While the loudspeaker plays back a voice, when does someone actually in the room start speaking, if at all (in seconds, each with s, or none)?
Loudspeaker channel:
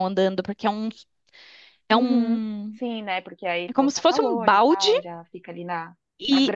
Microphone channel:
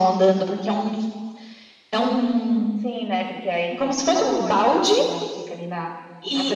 none